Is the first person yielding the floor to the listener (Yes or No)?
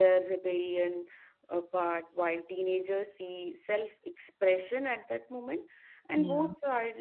No